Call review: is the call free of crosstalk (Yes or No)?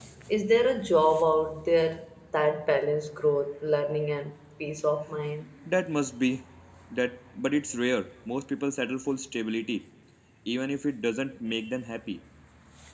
Yes